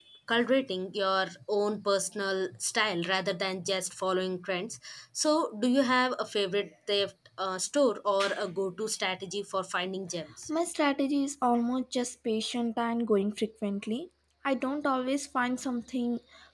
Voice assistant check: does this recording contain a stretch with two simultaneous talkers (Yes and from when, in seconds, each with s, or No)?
No